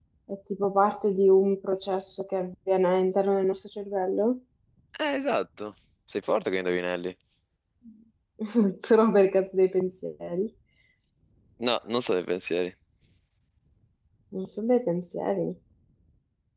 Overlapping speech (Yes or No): No